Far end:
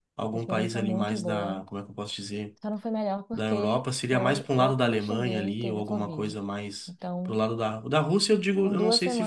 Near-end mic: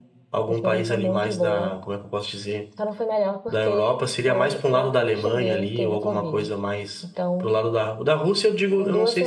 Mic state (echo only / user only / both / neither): echo only